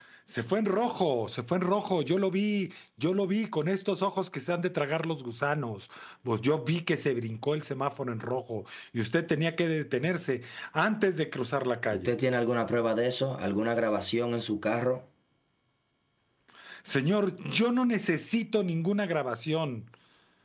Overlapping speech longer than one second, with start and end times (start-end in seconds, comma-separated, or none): none